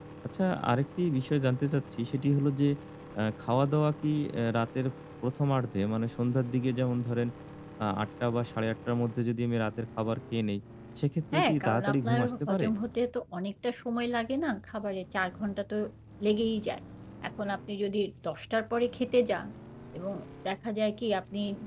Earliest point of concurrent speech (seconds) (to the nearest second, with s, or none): 11 s